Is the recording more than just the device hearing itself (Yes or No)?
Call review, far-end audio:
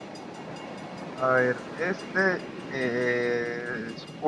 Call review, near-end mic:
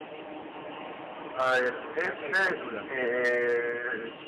Yes